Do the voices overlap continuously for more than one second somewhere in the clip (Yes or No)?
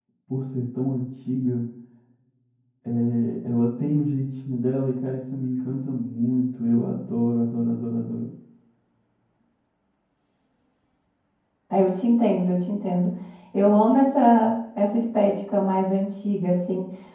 No